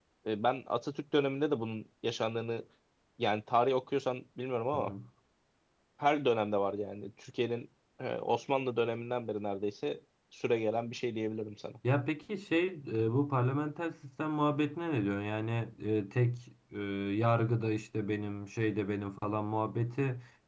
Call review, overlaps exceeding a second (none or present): none